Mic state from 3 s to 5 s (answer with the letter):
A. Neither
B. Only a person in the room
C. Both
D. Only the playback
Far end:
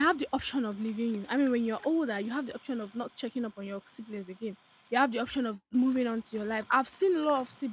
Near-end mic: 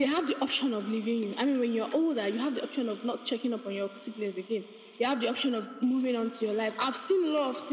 D